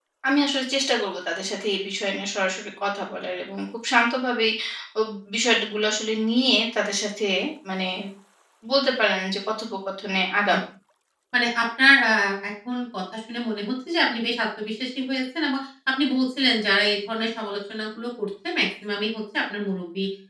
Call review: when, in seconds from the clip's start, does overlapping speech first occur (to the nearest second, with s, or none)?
none